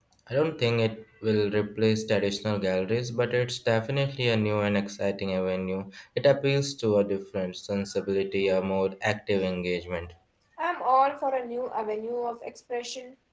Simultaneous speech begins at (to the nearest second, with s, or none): none